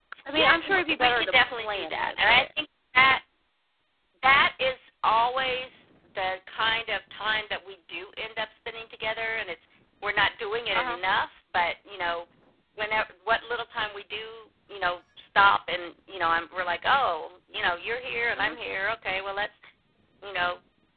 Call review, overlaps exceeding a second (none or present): present